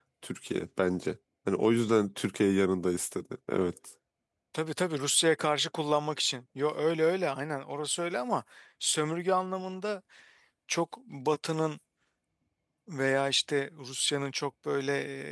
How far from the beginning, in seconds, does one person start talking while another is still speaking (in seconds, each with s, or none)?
none